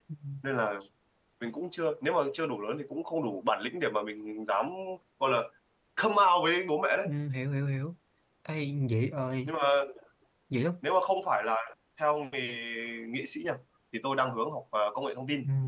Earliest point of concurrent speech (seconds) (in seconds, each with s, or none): none